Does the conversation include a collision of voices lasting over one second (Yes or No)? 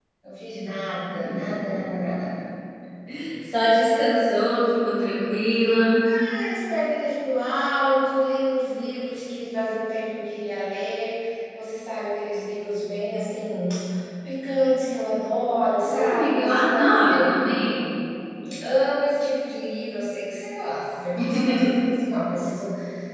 Yes